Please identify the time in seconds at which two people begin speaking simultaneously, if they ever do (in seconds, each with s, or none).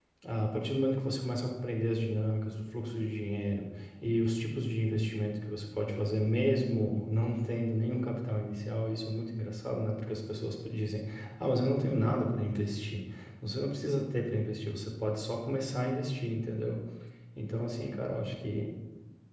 none